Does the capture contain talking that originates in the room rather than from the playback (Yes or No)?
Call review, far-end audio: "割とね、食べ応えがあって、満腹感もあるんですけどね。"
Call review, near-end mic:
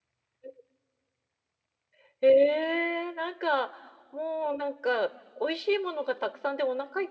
Yes